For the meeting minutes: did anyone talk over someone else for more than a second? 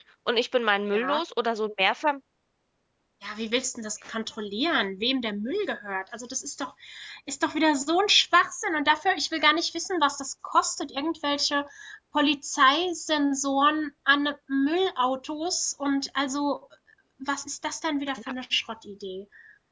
No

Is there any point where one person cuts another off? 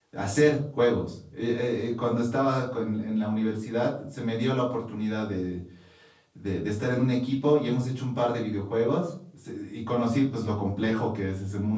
No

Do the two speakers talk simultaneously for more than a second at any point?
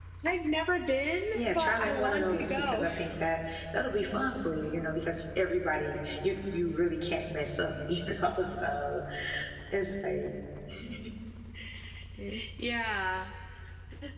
Yes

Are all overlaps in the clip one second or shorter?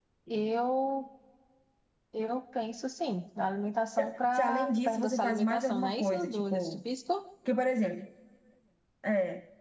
No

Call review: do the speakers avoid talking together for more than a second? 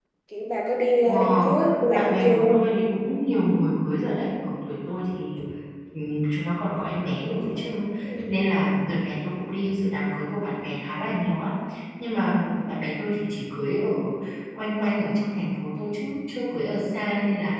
No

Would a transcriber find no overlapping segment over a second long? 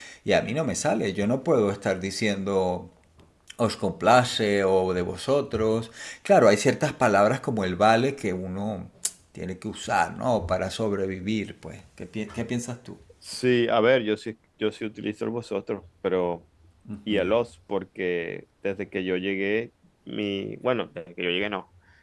Yes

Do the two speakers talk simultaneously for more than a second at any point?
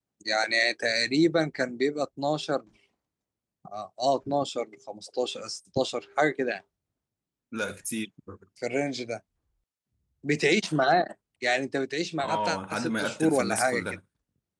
Yes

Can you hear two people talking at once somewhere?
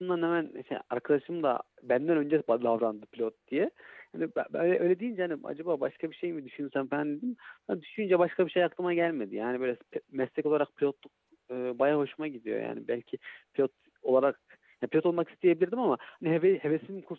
No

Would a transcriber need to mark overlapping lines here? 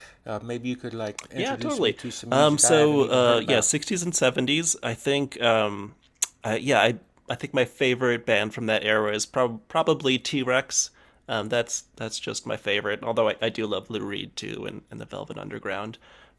Yes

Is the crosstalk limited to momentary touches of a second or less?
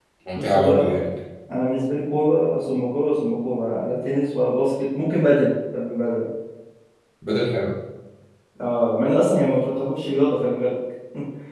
Yes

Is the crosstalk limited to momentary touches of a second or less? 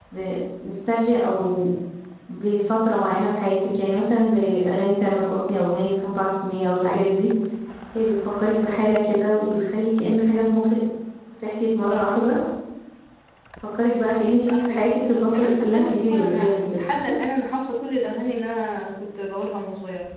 No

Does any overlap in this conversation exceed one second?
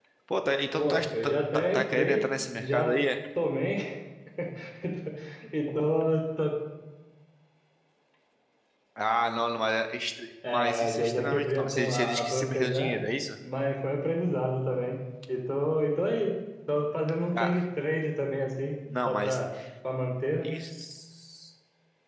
Yes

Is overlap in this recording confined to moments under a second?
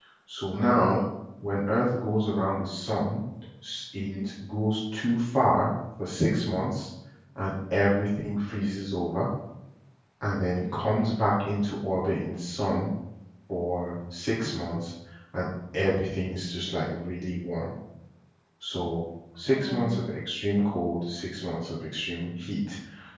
Yes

